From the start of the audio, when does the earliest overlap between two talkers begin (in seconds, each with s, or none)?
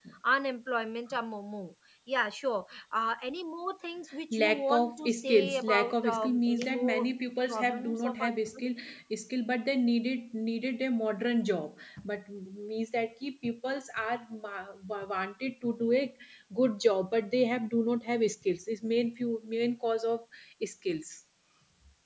4.3 s